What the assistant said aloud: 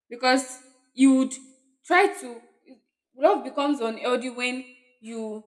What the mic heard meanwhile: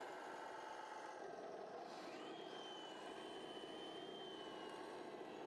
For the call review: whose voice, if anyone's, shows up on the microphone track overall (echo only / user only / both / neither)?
neither